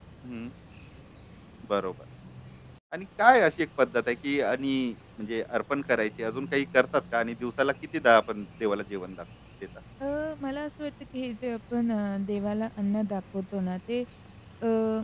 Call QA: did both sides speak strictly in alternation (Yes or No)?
Yes